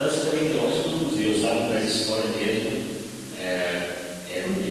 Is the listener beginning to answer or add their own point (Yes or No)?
No